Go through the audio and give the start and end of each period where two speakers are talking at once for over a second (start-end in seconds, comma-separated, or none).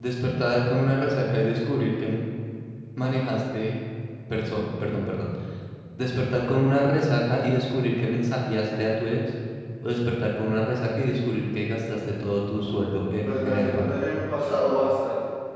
12.5-13.9